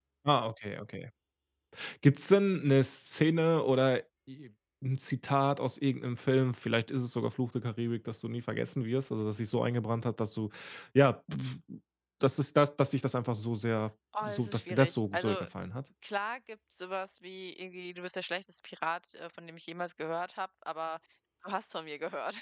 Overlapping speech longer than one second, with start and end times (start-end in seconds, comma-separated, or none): 14.2-15.4